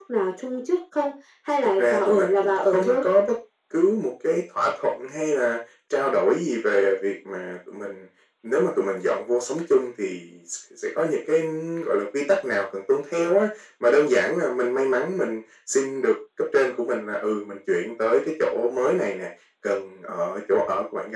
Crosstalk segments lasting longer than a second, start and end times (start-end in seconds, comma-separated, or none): 1.8-3.0